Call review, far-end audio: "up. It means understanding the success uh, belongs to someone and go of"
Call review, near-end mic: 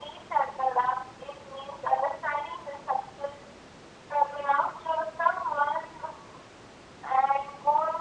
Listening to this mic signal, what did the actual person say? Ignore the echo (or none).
none